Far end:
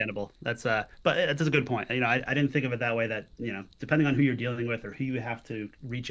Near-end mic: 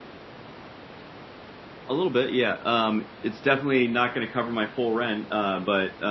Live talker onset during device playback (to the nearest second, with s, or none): 2 s